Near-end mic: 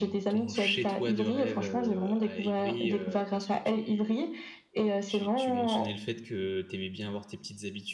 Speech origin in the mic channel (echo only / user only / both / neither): both